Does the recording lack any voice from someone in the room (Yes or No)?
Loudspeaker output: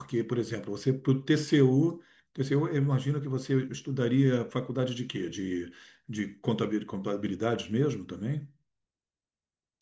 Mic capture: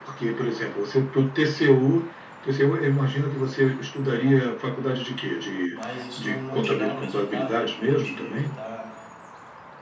No